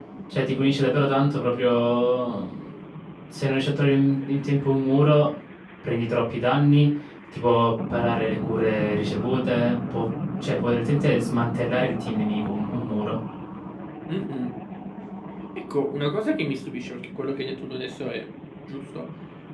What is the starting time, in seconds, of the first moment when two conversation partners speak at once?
none

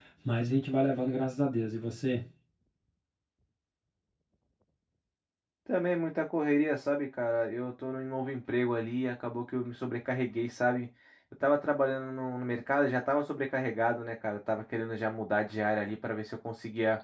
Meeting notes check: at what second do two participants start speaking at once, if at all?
none

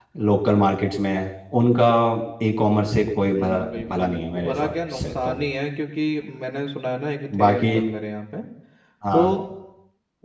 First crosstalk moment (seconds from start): 3 s

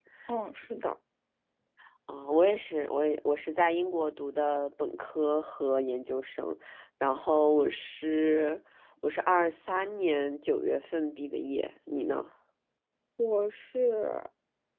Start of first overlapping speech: none

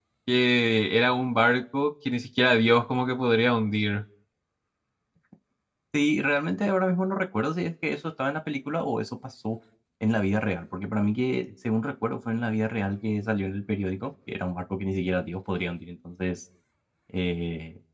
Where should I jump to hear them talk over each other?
none

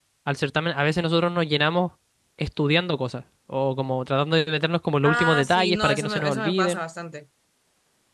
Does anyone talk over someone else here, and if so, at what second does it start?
5 s

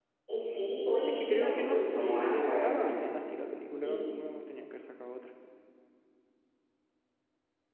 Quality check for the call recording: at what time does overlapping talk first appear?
1 s

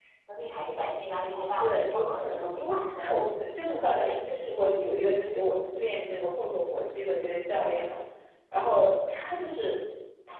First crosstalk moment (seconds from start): 2 s

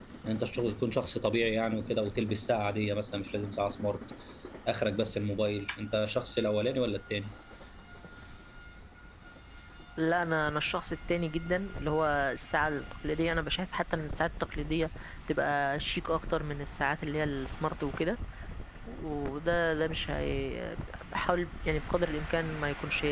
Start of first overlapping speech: none

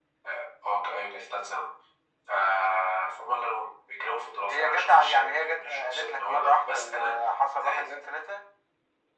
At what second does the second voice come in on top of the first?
4 s

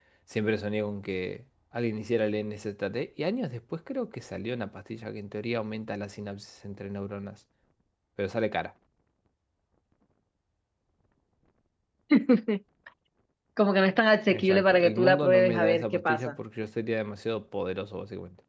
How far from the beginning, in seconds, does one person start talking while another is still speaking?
14 s

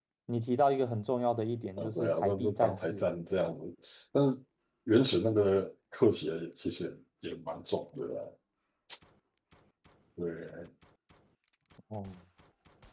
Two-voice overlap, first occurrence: 2 s

